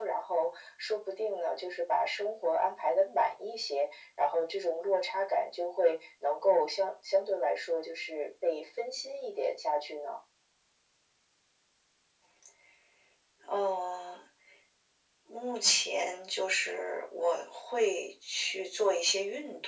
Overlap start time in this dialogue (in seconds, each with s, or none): none